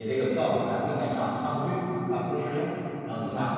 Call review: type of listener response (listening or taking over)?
taking over